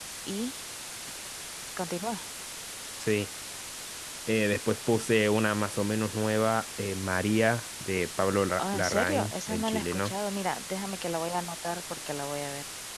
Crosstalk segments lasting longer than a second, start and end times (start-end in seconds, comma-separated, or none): 8.6-10.1